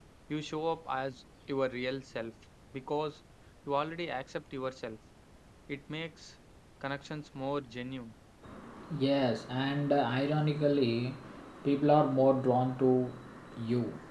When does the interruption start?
none

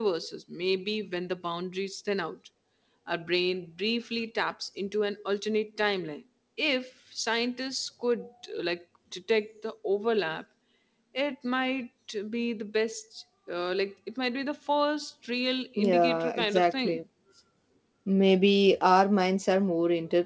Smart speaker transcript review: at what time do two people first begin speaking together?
16 s

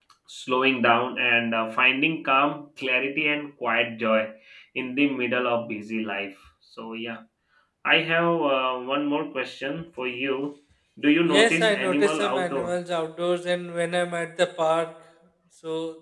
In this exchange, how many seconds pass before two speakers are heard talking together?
11 s

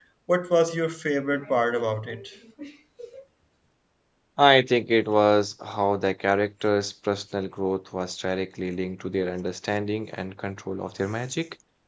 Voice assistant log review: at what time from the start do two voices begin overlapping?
none

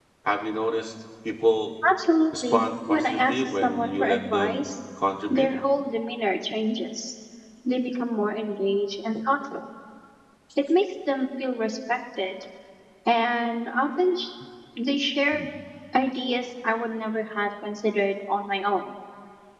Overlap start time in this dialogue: 2 s

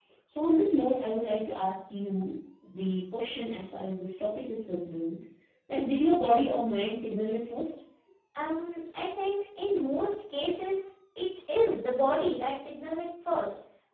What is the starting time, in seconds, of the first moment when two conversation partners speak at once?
none

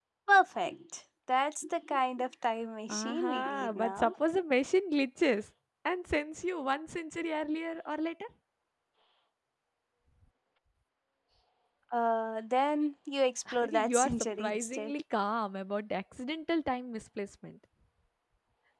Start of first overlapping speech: 3 s

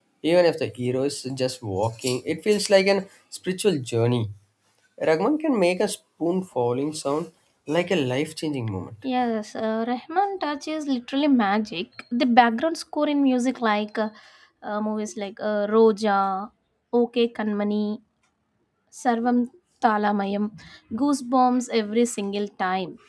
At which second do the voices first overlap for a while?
none

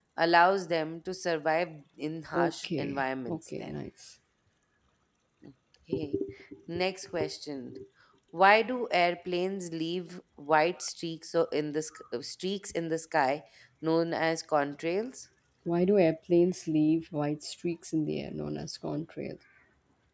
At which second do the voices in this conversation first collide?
2 s

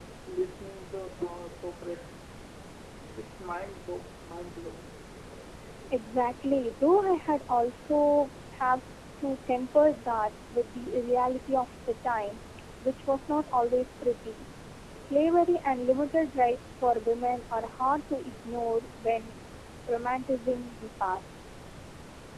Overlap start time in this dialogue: none

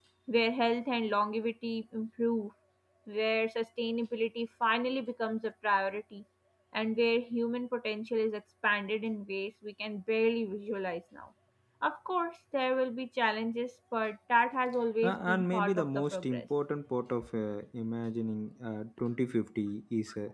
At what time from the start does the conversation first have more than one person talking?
15 s

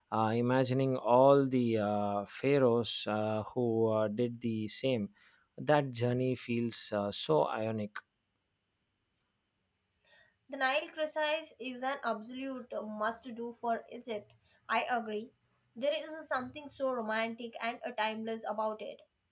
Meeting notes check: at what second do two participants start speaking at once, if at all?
none

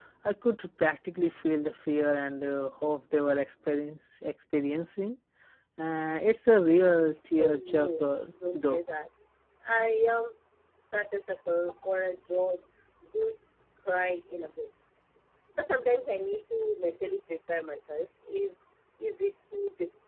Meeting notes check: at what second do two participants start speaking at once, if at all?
7 s

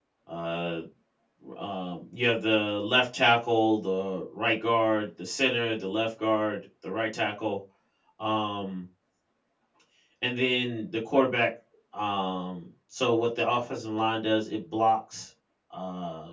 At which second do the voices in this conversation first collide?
none

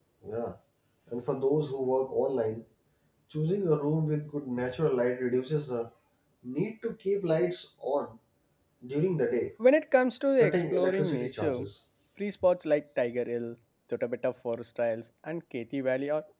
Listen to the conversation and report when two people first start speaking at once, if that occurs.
10 s

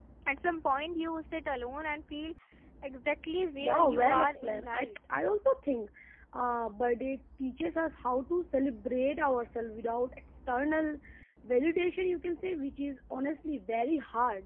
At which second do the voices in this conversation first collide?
4 s

